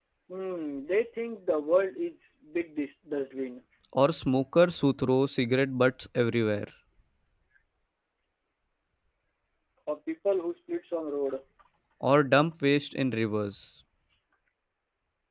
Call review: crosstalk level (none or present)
none